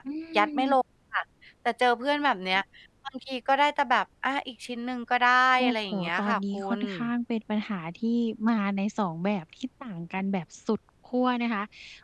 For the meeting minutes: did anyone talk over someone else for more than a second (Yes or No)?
Yes